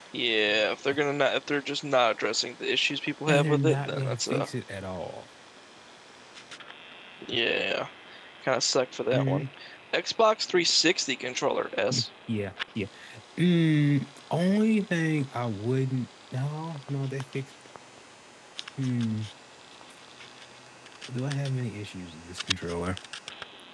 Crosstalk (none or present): present